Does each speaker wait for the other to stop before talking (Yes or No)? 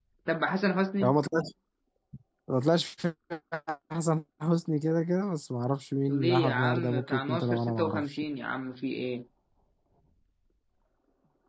No